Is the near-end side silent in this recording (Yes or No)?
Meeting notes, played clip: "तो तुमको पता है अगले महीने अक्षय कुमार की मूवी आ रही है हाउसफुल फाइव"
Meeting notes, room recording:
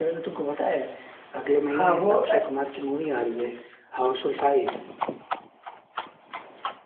No